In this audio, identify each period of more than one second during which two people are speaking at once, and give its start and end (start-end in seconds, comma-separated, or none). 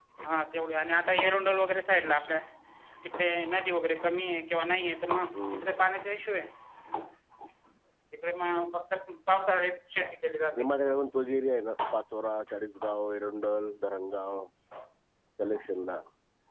none